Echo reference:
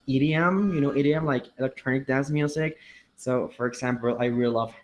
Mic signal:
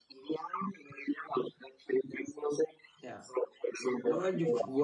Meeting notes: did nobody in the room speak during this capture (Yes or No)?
No